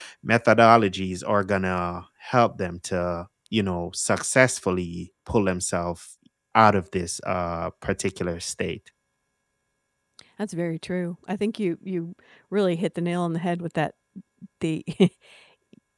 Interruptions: none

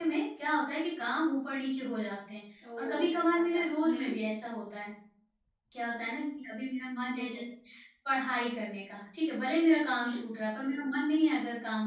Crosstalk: present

